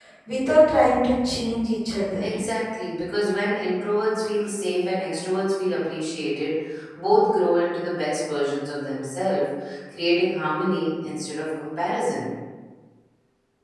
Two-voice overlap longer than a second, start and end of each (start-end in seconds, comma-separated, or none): none